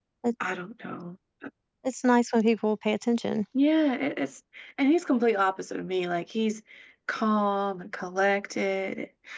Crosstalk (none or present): none